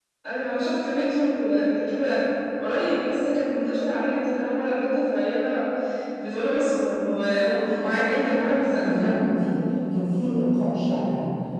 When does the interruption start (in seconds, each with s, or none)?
7.3 s